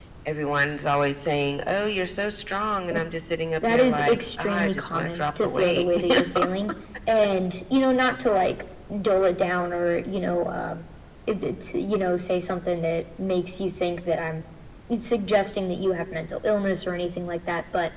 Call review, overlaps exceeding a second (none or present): present